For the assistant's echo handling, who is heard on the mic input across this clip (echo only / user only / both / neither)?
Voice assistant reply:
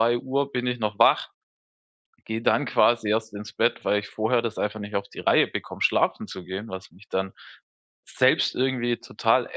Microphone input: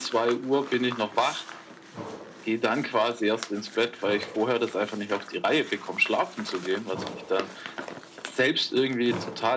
echo only